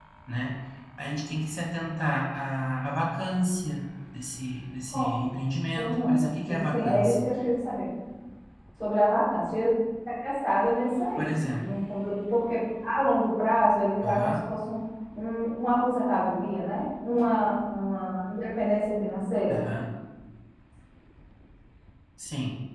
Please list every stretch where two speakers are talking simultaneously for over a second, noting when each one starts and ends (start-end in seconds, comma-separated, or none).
5.8-7.2